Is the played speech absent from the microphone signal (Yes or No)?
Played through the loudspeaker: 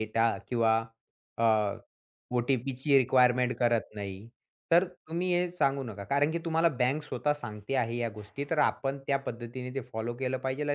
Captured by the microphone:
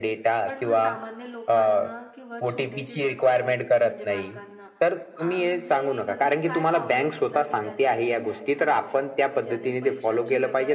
No